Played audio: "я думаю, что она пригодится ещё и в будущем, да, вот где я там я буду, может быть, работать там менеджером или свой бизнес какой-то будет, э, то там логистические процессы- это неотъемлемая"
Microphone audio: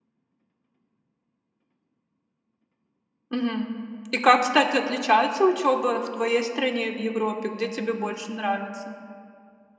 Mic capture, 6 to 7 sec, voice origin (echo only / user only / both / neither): user only